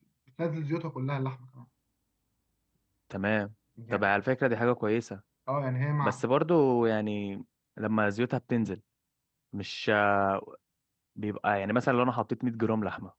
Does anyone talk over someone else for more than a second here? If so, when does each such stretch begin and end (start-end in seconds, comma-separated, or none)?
none